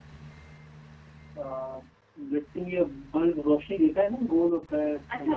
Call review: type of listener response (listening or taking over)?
taking over